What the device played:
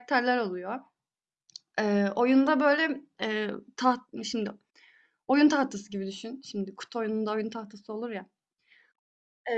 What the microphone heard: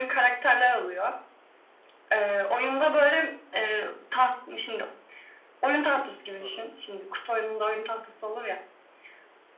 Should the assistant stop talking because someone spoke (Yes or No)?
Yes